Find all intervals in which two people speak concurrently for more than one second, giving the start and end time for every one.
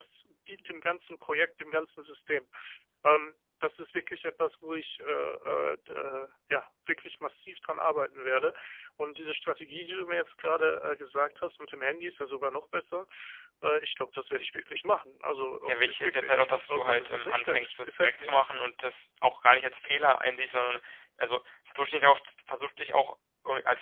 15.6-18.4

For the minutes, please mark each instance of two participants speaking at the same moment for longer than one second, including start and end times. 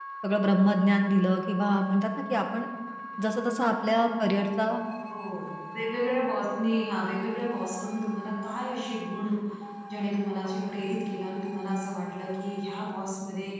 none

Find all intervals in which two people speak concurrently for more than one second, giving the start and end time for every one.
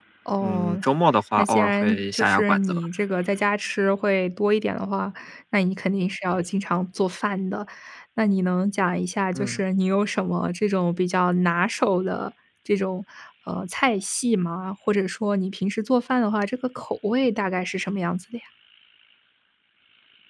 1.4-2.8

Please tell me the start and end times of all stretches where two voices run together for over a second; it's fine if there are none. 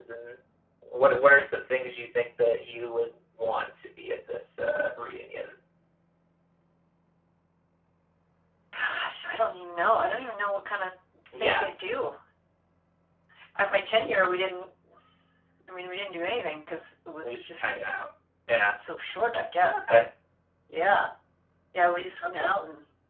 none

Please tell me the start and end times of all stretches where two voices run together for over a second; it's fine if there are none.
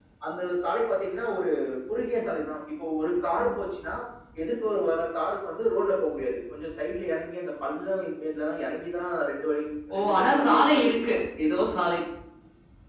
10.0-11.2

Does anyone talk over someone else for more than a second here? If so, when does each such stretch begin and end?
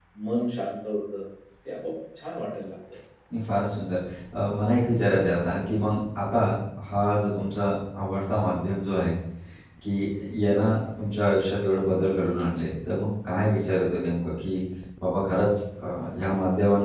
none

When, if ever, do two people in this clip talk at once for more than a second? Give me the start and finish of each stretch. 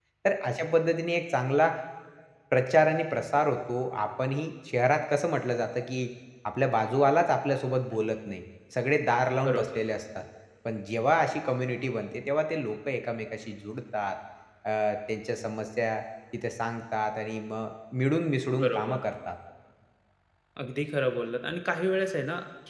none

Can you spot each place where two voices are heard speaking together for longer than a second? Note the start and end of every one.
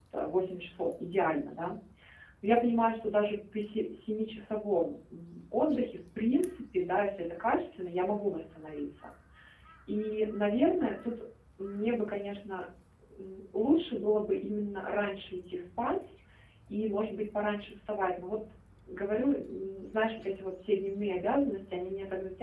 none

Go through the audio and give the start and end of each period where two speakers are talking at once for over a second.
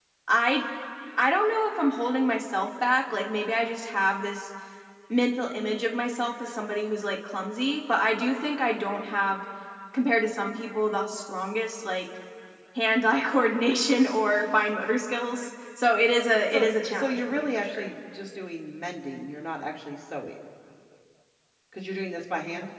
16.5-17.9

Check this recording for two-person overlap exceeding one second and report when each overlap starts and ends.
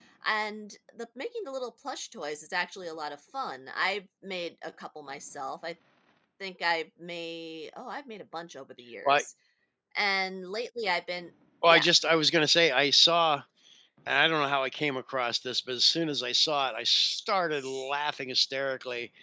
none

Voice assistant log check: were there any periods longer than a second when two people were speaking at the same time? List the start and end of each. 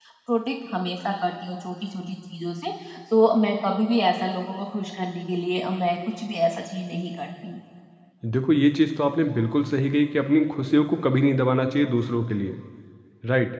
none

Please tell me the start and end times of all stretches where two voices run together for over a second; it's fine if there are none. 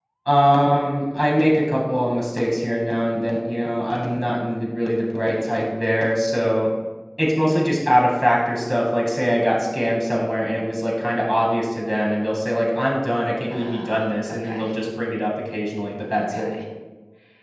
13.5-14.7

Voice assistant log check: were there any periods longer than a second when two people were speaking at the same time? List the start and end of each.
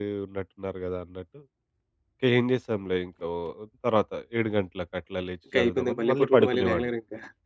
5.5-6.9

